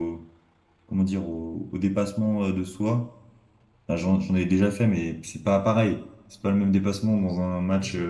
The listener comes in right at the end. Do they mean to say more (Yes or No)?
Yes